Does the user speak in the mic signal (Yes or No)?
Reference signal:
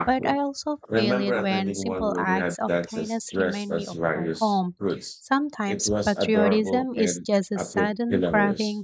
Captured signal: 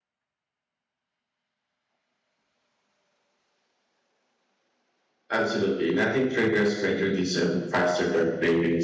Yes